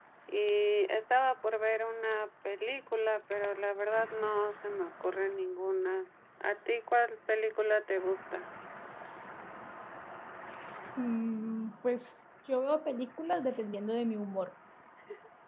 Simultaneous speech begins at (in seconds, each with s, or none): none